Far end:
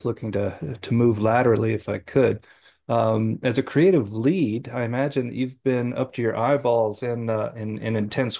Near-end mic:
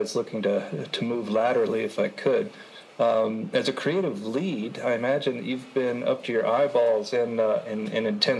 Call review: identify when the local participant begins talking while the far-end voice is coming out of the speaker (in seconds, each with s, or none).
none